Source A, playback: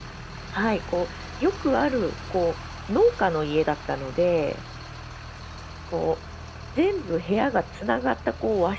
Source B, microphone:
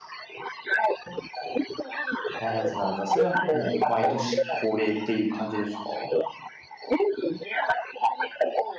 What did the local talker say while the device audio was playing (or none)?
なるほどなるほど。それはもう毎年恒例っていう感じですか？